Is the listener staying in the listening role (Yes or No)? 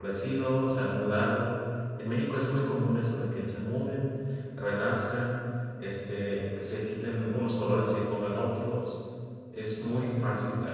Yes